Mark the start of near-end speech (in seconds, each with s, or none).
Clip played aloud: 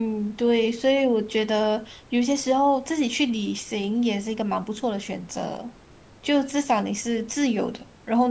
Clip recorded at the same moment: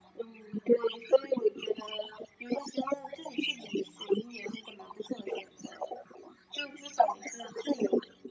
none